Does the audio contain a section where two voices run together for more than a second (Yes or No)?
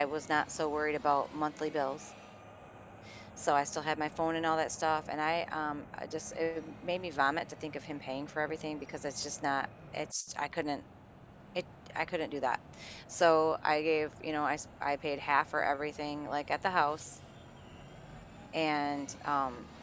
No